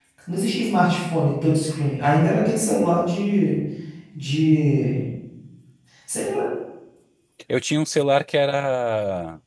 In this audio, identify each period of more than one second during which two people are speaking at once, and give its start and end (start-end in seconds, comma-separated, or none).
none